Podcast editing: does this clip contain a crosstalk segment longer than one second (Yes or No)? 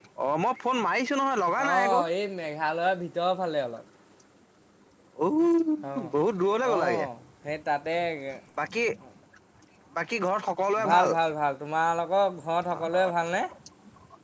No